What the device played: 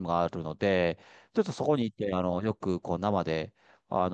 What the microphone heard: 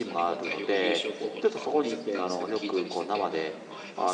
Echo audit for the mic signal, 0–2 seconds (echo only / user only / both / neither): both